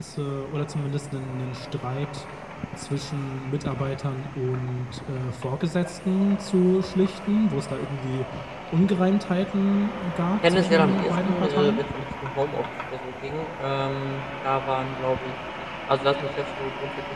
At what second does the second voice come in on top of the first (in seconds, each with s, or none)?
10.4 s